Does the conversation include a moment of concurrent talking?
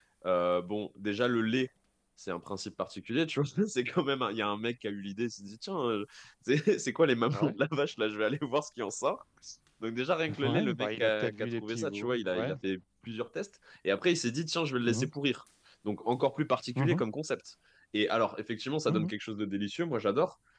Yes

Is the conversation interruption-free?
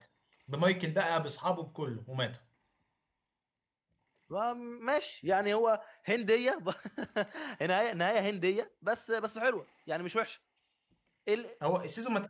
Yes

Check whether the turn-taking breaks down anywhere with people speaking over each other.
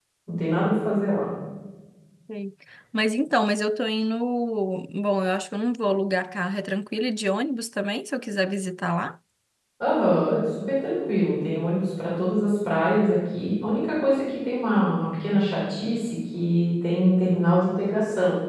No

